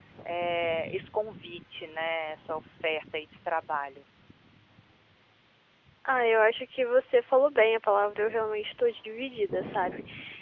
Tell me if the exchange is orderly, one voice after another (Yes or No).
Yes